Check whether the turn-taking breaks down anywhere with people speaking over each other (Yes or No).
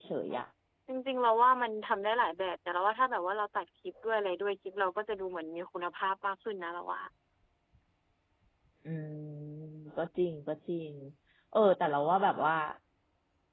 No